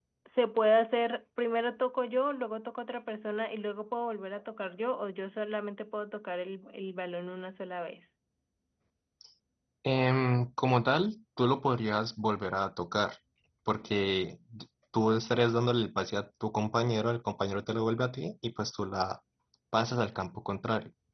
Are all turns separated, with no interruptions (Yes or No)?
Yes